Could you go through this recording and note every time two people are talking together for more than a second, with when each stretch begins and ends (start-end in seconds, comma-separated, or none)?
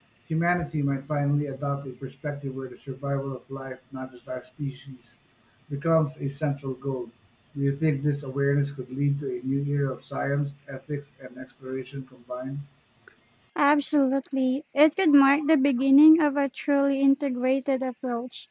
none